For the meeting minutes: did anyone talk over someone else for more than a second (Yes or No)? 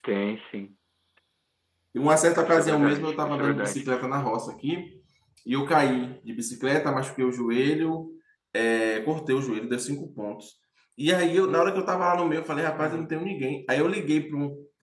Yes